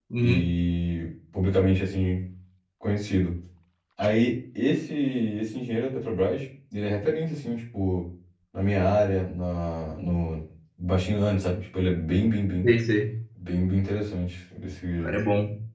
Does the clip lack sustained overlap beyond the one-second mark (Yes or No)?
Yes